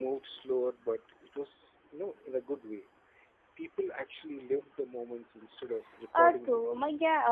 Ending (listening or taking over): taking over